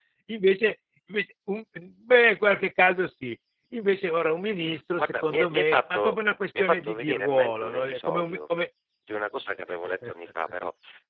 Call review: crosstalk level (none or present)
present